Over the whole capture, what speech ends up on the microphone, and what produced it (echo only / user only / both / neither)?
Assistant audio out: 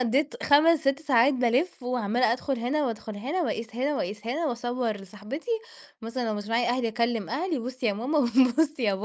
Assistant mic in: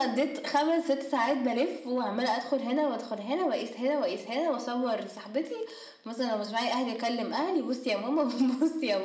echo only